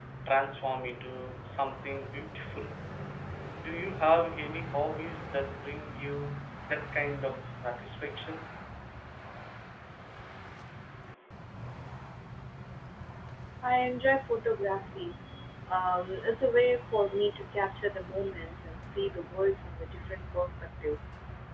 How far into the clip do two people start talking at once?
none

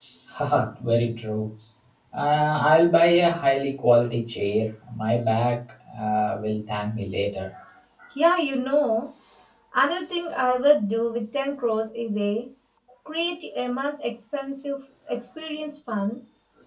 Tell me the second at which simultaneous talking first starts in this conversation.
none

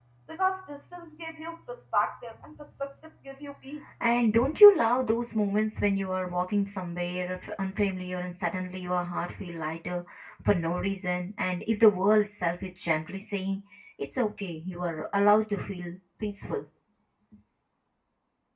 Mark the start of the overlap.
none

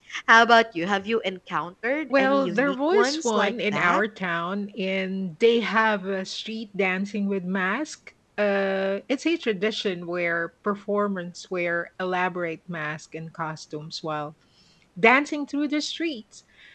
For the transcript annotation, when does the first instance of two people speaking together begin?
2.1 s

